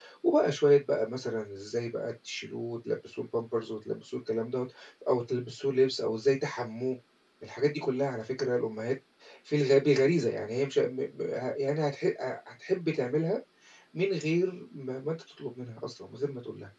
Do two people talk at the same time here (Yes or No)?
No